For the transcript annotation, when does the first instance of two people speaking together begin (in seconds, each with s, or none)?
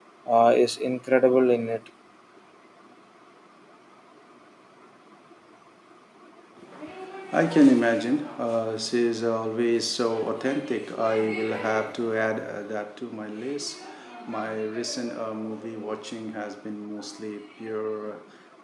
none